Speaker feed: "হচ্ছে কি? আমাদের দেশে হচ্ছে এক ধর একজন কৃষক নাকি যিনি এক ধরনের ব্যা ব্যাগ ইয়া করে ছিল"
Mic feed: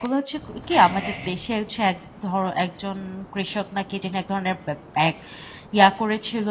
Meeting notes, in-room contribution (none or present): present